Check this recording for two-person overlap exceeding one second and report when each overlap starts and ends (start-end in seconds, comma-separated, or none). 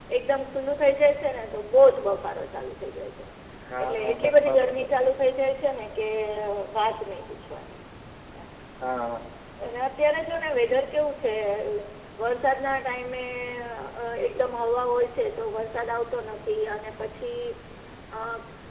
3.8-5.1